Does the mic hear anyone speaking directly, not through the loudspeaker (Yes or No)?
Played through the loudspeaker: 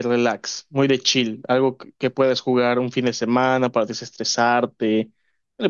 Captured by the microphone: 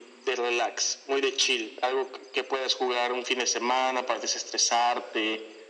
No